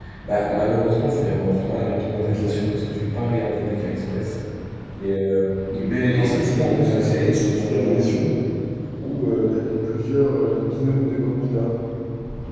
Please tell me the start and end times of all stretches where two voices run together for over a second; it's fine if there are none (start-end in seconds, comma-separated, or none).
6.2-8.1